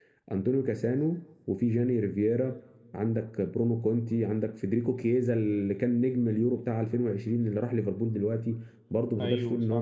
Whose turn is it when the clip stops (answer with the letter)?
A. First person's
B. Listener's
A